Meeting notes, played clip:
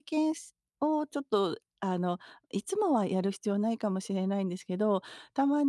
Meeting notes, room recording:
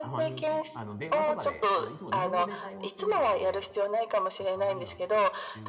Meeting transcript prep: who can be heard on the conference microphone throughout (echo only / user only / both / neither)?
both